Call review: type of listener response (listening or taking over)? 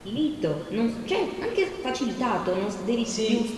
taking over